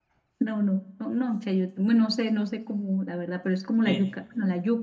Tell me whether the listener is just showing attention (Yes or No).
Yes